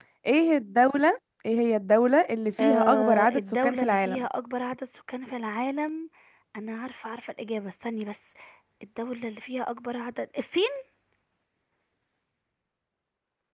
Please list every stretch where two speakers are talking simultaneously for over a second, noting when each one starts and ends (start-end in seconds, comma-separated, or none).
2.6-4.2